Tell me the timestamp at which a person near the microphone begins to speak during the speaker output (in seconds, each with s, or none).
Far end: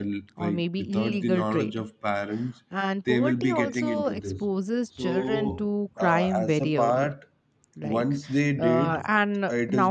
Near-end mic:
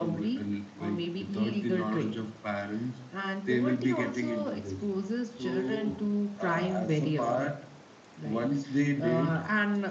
none